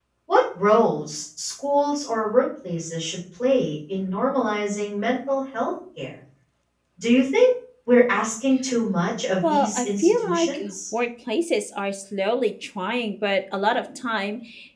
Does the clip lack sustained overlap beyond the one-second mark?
No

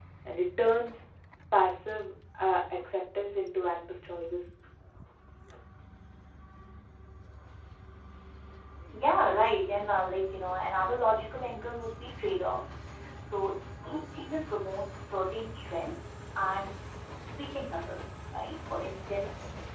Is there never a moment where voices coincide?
Yes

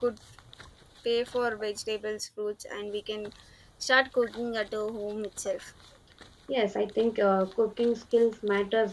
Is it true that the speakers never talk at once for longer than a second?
Yes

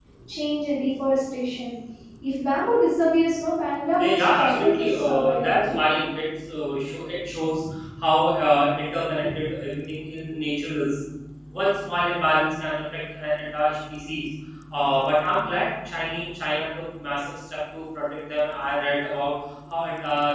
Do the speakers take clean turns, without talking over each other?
No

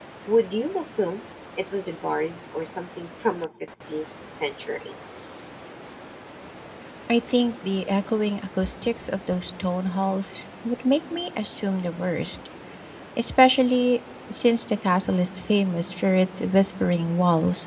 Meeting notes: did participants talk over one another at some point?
No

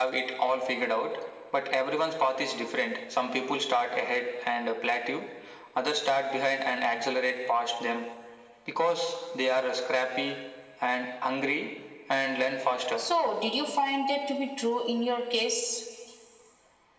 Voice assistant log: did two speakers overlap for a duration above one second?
No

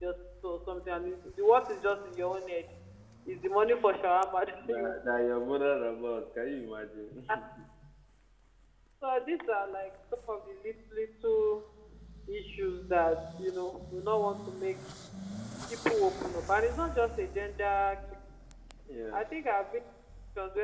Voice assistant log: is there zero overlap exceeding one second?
Yes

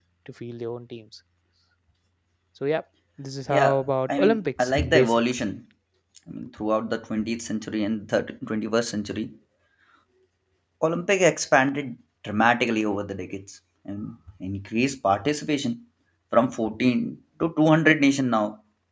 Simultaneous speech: Yes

